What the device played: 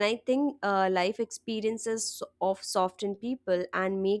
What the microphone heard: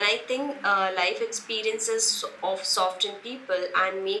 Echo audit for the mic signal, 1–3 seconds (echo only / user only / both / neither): echo only